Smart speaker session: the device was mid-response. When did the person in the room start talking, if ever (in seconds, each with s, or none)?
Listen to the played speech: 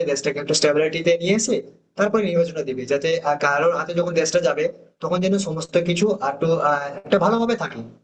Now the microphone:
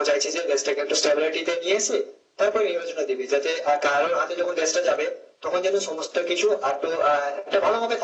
none